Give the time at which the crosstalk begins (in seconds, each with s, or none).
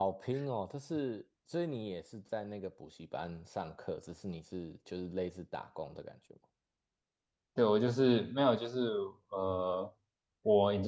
none